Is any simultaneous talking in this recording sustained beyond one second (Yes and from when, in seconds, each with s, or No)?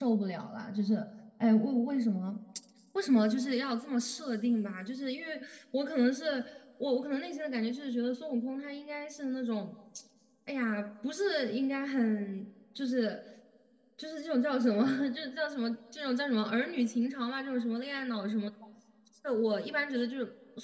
No